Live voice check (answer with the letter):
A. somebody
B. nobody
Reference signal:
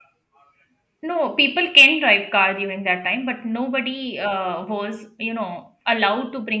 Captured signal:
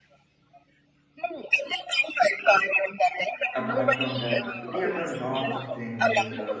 A